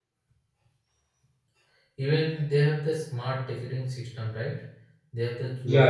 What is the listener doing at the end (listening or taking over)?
listening